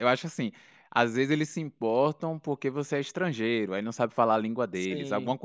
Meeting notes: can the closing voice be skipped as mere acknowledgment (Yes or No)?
Yes